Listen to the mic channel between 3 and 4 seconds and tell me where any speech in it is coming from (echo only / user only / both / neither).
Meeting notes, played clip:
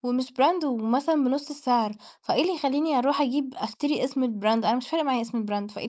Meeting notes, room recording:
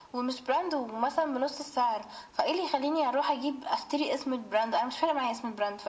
echo only